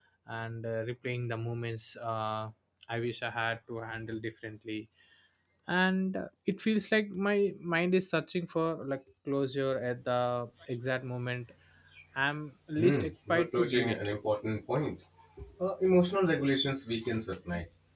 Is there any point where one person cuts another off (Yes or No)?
Yes